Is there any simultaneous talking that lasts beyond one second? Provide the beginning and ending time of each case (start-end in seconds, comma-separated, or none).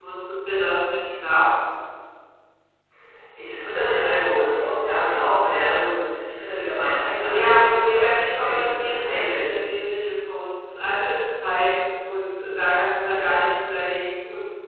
7.3-9.5